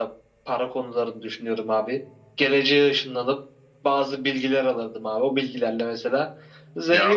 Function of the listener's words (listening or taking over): taking over